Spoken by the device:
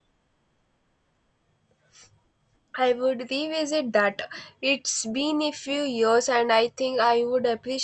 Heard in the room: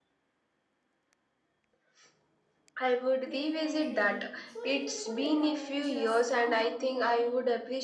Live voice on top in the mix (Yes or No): No